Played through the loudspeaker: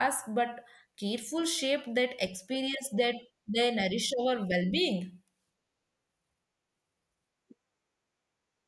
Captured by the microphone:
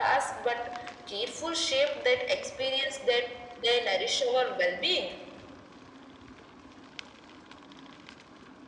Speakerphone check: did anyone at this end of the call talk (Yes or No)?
No